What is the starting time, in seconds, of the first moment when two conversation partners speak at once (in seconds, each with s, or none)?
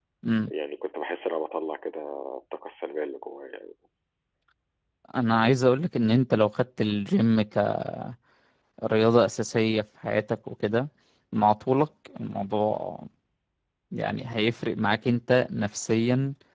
none